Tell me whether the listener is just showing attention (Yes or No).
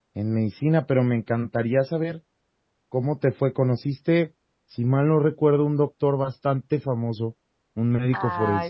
No